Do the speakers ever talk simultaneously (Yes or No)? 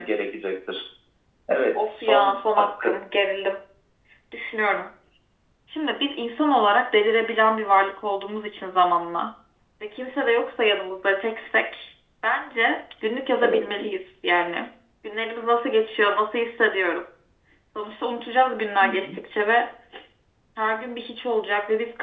Yes